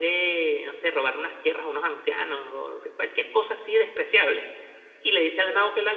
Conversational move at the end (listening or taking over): listening